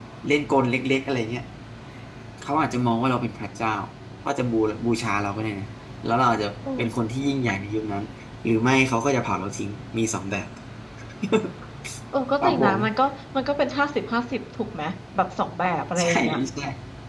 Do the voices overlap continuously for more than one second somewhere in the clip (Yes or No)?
No